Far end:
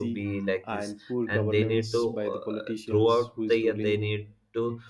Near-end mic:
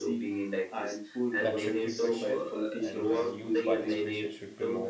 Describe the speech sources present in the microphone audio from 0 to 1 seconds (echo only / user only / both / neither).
echo only